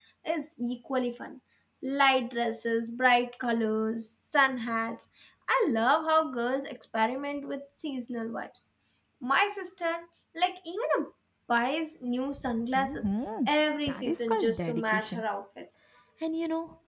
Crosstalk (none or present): present